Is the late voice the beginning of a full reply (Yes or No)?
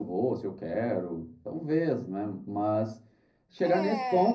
No